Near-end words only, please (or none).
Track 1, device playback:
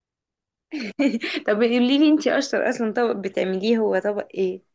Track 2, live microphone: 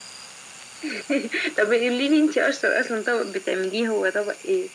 none